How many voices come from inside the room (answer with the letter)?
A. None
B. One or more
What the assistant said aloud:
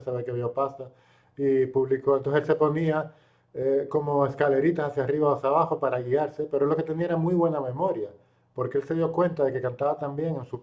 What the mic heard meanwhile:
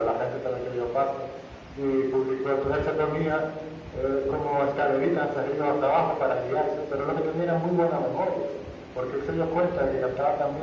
A